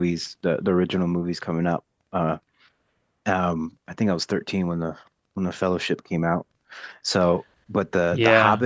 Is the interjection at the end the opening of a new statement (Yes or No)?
No